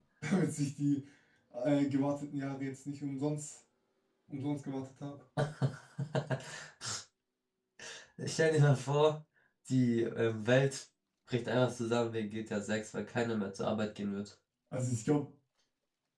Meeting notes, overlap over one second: none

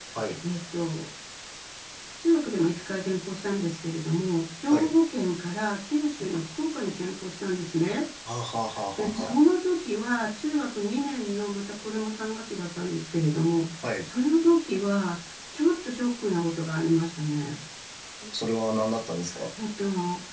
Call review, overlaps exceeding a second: none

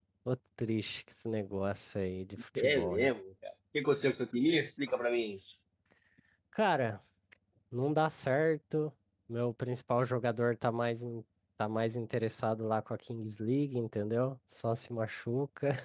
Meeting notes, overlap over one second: none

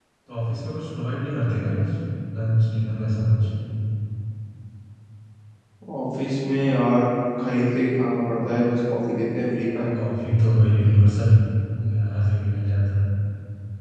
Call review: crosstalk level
none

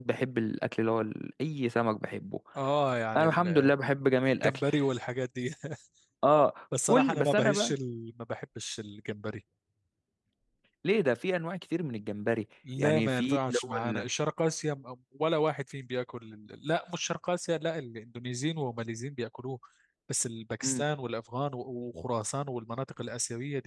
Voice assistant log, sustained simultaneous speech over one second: present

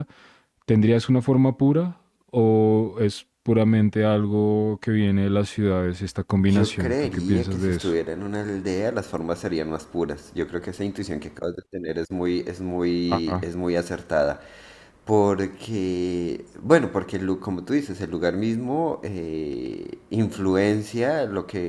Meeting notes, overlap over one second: present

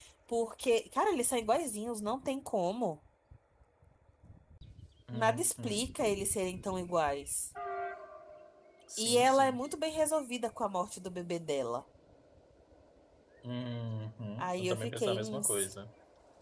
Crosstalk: present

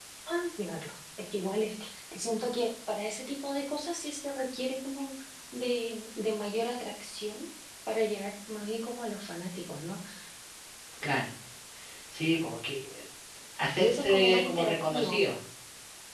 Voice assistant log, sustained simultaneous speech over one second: present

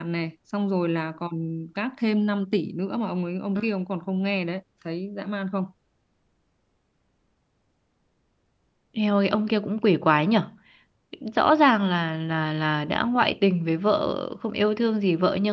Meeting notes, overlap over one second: none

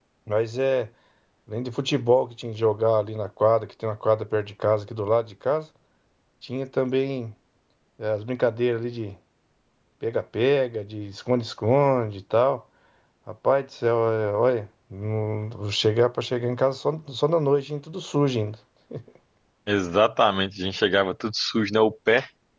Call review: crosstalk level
none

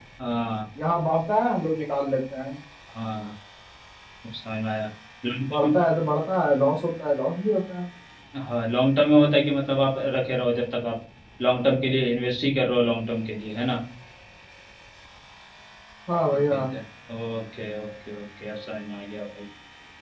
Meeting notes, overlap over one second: none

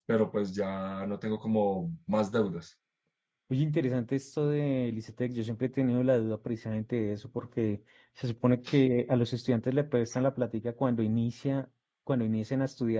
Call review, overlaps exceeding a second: none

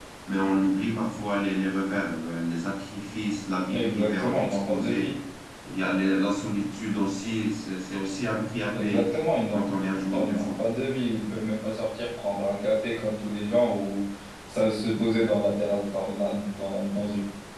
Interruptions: present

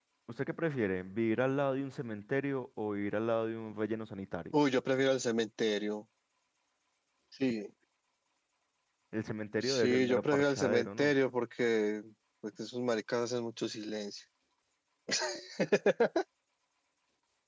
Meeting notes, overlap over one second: present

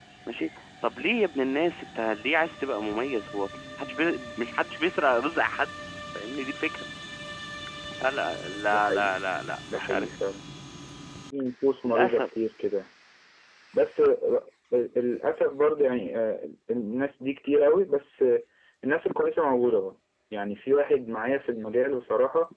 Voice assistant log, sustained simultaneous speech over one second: none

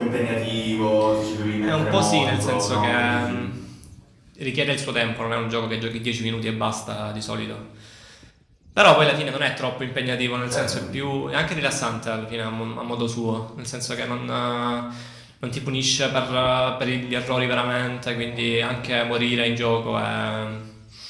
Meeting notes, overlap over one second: present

